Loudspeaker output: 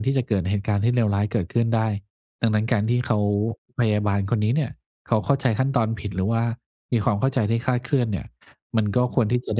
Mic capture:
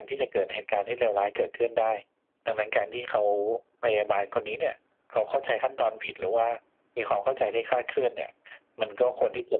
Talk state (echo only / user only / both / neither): echo only